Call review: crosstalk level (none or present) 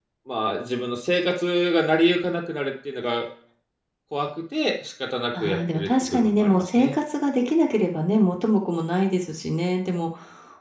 present